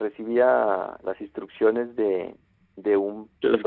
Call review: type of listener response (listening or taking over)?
listening